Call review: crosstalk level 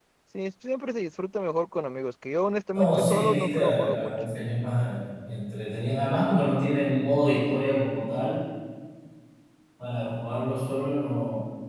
present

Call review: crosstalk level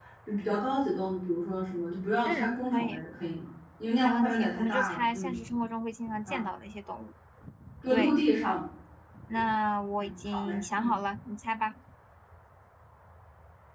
present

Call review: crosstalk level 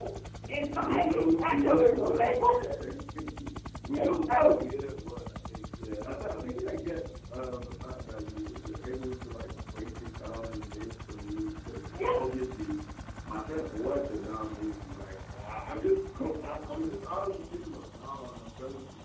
present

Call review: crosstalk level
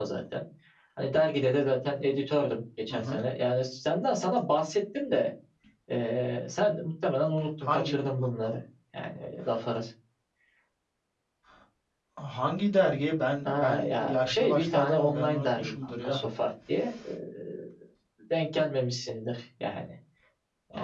present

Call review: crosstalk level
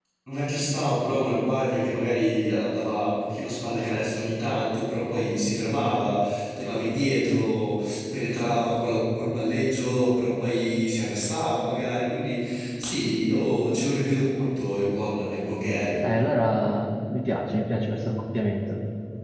none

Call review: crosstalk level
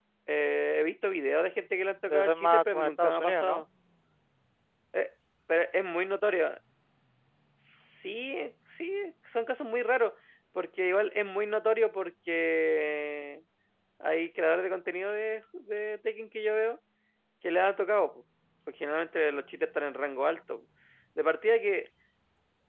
present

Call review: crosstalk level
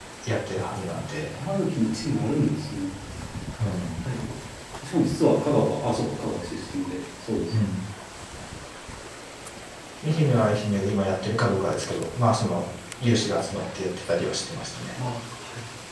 none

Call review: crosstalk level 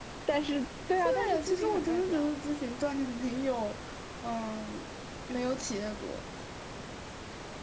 present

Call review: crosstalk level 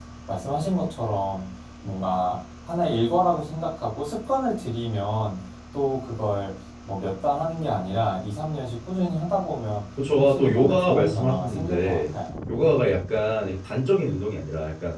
present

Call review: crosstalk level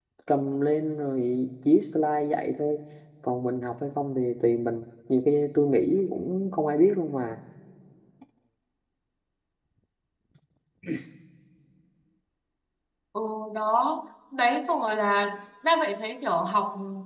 none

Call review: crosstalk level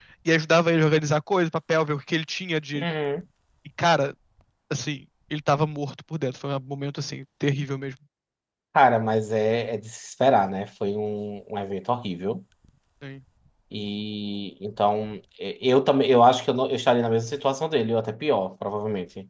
none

